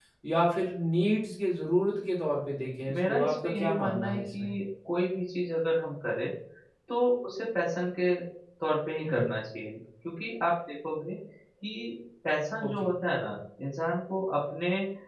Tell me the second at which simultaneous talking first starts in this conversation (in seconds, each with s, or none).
3.1 s